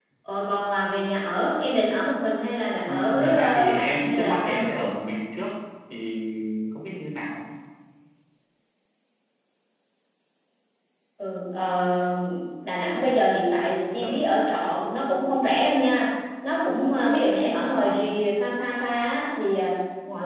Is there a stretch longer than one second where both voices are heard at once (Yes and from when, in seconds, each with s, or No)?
Yes, from 2.8 s